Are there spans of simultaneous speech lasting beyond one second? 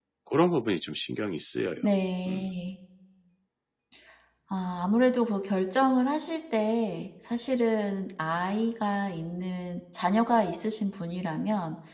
No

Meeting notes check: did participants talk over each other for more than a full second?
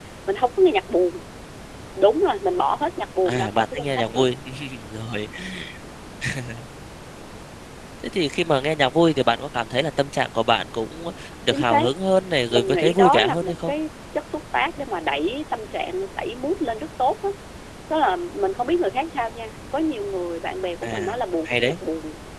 Yes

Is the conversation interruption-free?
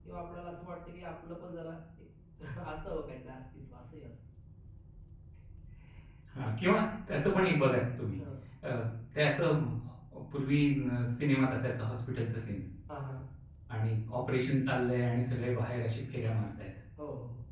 Yes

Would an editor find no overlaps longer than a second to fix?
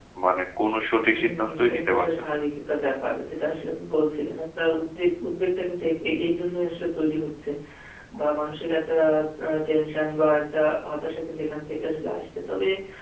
No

